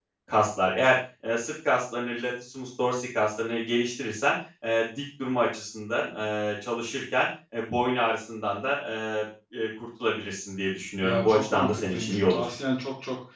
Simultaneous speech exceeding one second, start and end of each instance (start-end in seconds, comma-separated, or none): 11.0-12.4